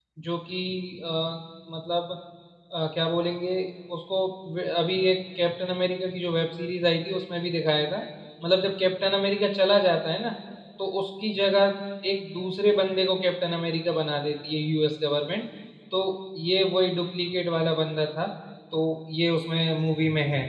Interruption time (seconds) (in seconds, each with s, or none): none